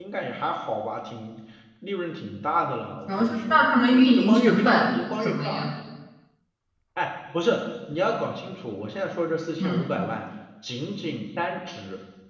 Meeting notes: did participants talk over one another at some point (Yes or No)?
Yes